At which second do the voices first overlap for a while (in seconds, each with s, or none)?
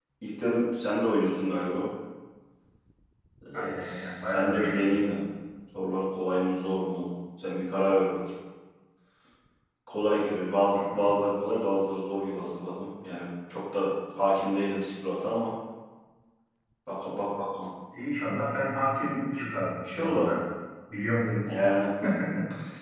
3.5 s